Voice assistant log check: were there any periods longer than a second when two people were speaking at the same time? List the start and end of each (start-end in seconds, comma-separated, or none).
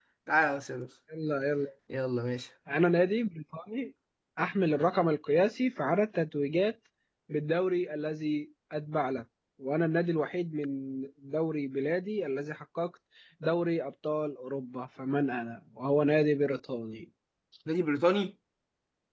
none